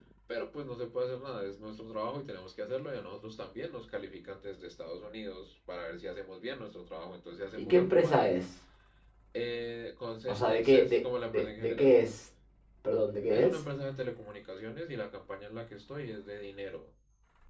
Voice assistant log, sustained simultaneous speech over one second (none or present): present